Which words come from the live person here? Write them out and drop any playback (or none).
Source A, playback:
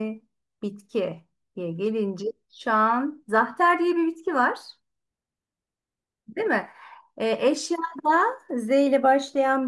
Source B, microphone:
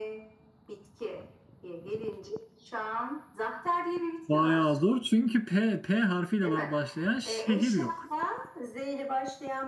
Bayağı zor çünkü P, P harfiyle ba- başlayan şehir yok.